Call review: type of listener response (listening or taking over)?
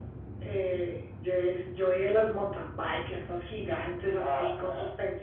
listening